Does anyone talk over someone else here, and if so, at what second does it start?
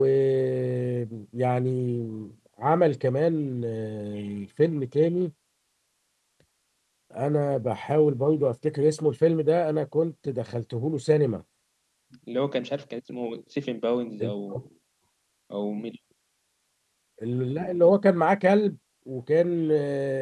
none

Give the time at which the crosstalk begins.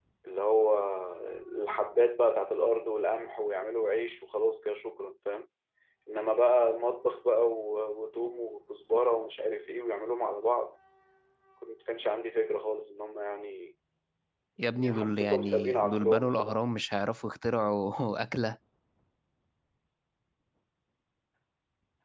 15 s

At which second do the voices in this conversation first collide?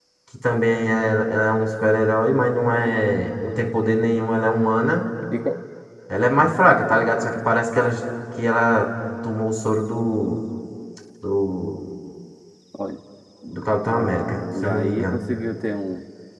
14 s

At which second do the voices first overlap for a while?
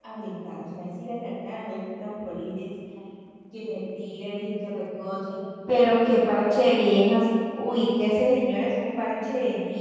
none

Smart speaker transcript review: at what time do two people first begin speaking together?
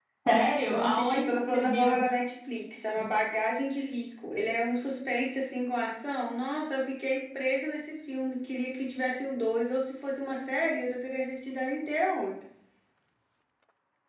1 s

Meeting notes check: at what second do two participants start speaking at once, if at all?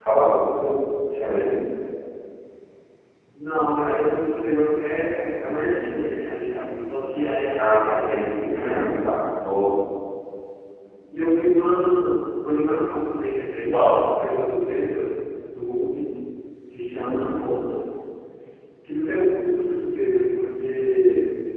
8 s

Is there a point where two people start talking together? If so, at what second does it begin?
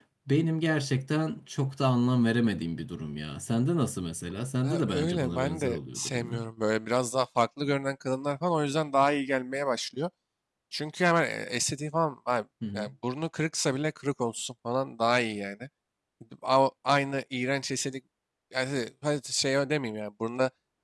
5 s

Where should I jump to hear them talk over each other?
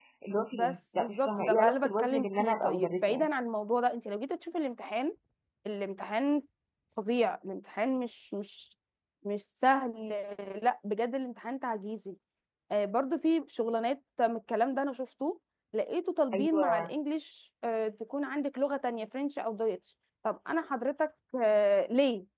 1 s

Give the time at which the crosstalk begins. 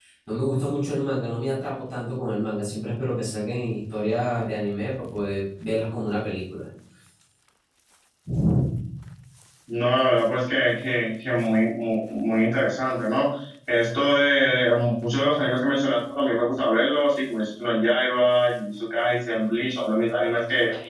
none

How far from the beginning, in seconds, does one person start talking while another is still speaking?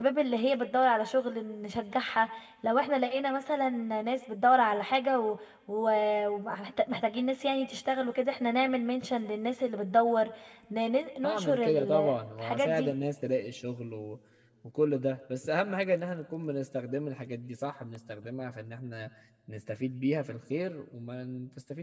11 s

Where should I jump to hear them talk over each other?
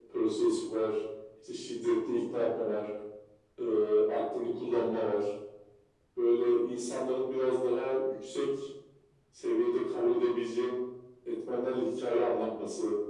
none

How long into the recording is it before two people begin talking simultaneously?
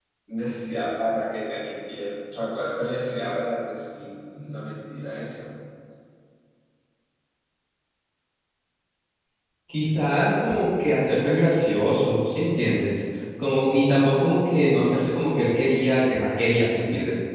none

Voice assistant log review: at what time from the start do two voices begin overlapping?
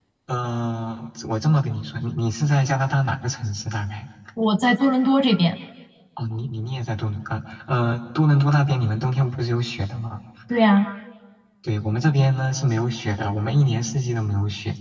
none

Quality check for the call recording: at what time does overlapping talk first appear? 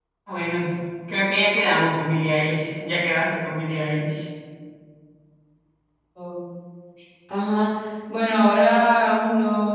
none

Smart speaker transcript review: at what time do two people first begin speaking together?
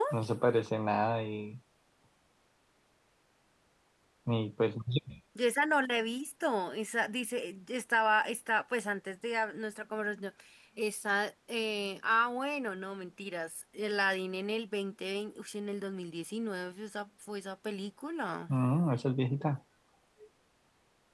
none

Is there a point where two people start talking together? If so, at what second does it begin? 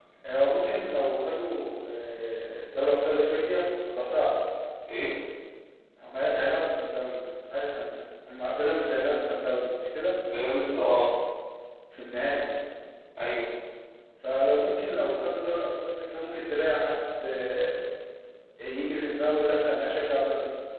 none

